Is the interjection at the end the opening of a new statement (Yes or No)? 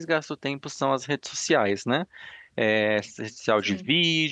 No